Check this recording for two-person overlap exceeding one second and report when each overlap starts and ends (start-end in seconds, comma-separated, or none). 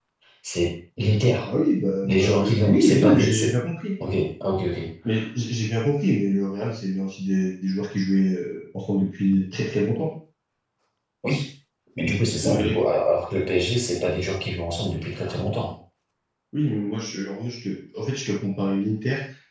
2.0-3.5